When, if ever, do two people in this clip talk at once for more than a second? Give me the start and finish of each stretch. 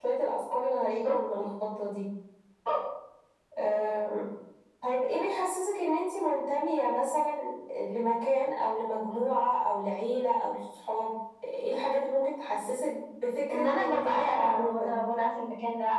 13.5-15.0

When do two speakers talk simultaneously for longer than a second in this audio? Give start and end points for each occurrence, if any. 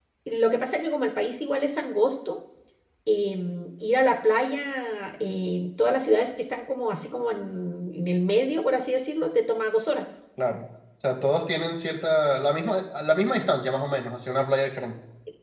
none

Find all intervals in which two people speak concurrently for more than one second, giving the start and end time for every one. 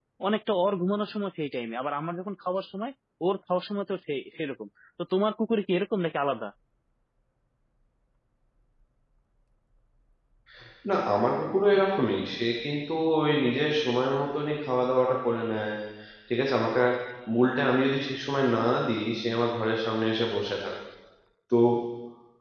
none

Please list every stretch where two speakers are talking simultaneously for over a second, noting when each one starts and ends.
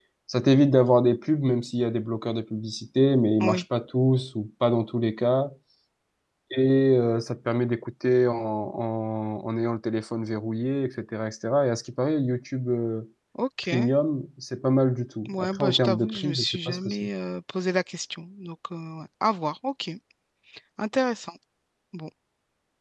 15.3-17.1

